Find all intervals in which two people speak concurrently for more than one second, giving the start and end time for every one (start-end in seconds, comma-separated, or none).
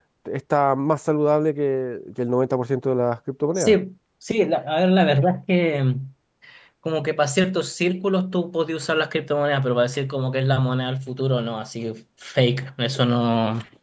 none